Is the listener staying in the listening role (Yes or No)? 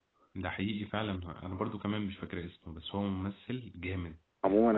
No